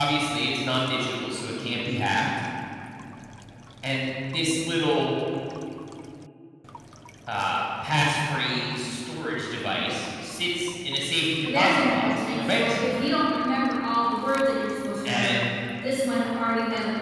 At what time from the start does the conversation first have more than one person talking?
11 s

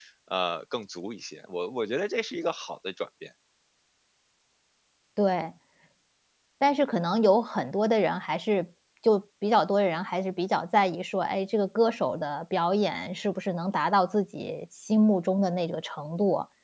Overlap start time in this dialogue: none

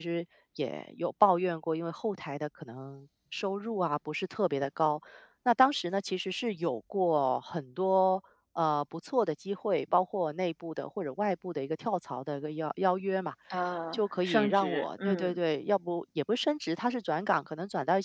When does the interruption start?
14 s

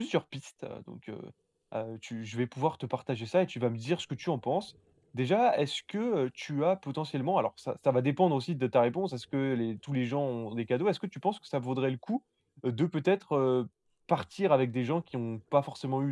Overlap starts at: none

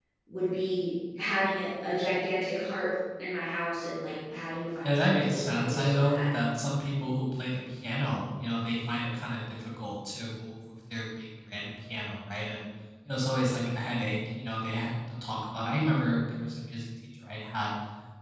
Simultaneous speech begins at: 5 s

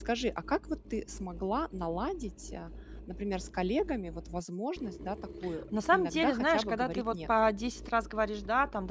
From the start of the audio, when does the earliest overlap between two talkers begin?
6 s

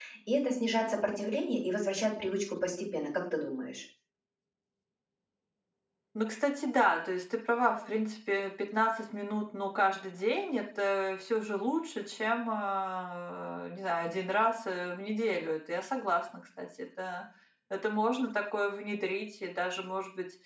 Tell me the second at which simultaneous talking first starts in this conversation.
none

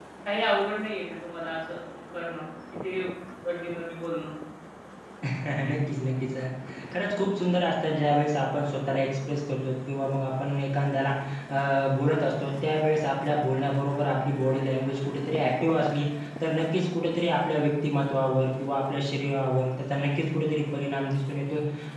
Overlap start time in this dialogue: none

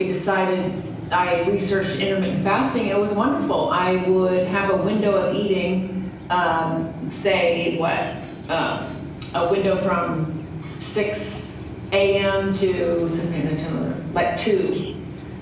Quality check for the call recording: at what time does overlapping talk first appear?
none

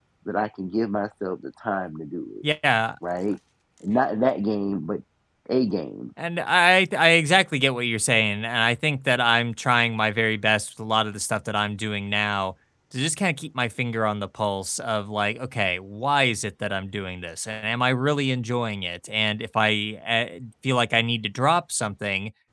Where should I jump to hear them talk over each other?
none

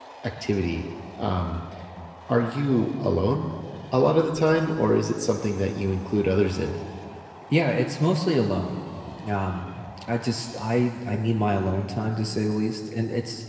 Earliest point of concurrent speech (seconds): none

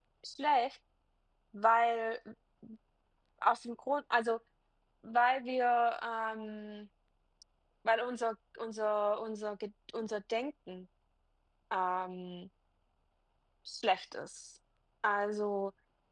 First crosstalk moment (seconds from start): none

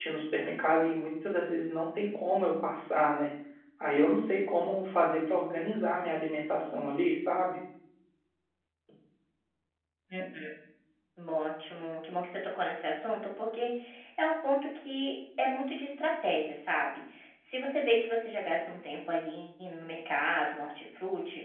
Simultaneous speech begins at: none

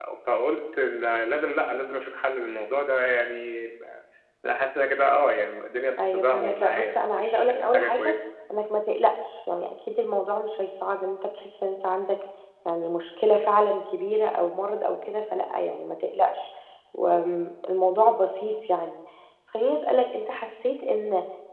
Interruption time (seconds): 6 s

